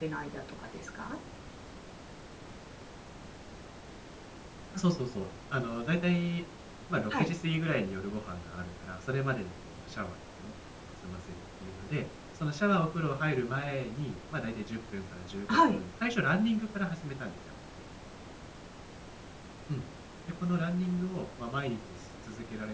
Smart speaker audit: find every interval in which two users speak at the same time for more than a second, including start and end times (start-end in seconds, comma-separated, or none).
none